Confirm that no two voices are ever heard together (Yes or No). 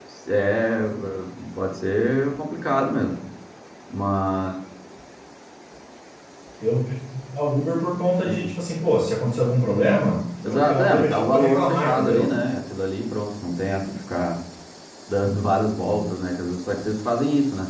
No